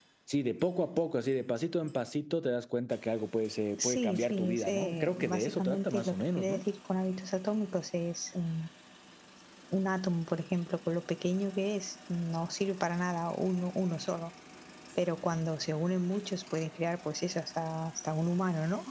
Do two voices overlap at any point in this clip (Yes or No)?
Yes